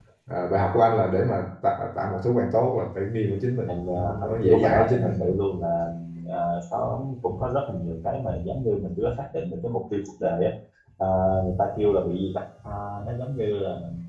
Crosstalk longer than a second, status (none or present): present